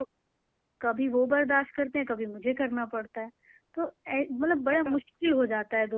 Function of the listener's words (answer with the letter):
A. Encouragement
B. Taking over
A